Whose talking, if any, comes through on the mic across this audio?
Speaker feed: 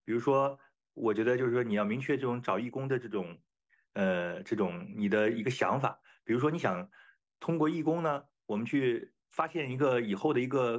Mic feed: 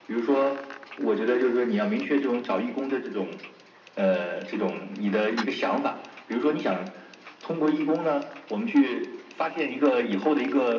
echo only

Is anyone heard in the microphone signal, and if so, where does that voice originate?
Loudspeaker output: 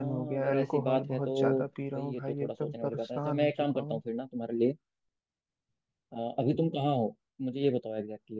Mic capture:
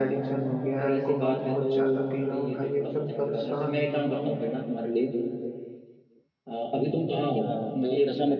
both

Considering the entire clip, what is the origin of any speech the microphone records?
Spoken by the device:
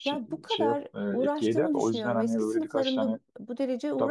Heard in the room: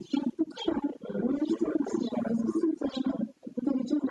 echo only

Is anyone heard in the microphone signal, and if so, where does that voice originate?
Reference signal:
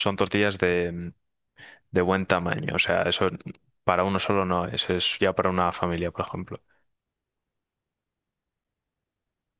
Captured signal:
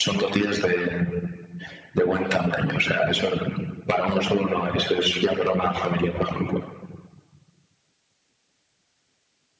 echo only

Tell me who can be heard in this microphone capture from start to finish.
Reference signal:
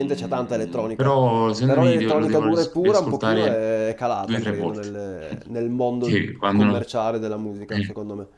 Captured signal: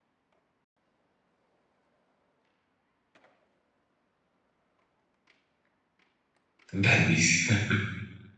user only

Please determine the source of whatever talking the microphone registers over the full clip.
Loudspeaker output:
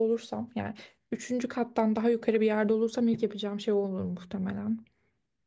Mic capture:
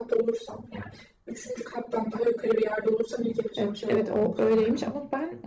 both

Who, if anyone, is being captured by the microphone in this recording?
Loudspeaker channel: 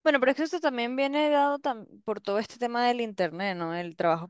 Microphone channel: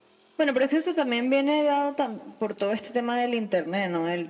echo only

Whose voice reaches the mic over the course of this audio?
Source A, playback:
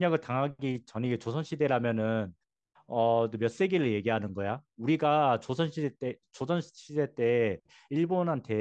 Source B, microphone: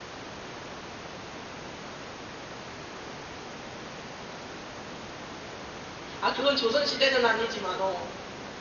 user only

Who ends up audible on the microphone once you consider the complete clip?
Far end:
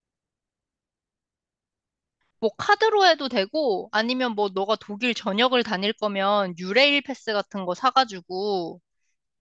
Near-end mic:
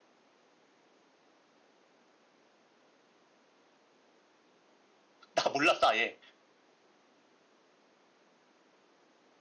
user only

